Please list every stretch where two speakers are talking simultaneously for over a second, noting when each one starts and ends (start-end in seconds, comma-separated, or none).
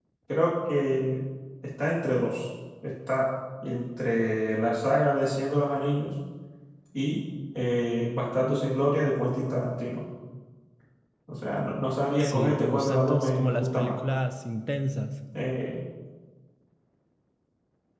12.2-13.9